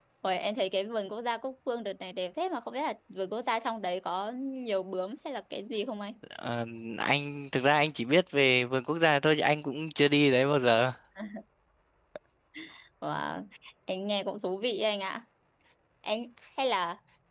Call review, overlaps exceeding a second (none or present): none